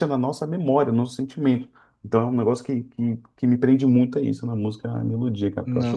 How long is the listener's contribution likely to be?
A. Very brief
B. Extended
B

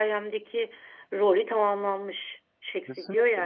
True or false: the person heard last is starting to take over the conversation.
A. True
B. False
B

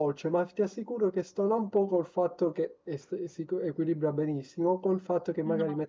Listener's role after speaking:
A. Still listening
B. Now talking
A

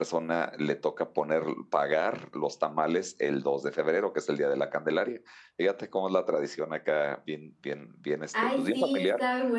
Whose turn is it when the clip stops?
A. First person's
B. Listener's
B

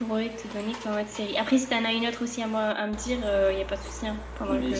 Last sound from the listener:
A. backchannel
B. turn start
B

